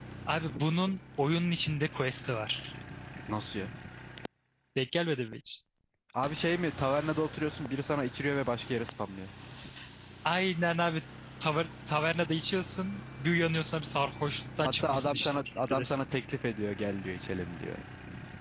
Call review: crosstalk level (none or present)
present